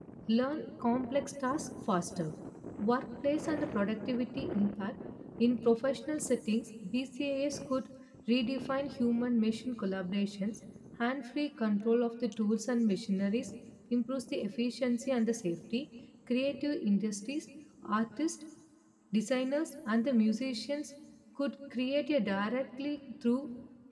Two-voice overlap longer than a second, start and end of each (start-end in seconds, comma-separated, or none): none